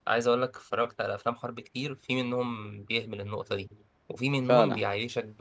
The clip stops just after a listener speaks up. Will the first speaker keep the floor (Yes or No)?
Yes